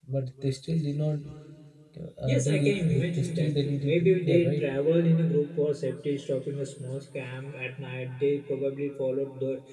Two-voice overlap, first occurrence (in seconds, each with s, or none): 2.3 s